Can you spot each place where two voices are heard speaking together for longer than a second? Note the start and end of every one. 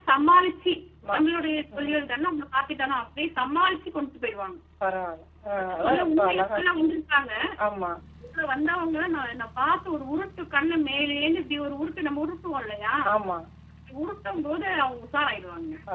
5.7-7.0

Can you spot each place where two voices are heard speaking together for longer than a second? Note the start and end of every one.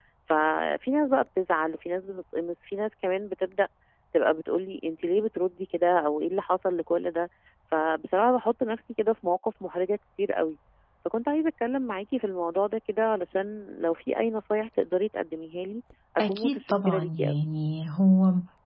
16.2-17.4

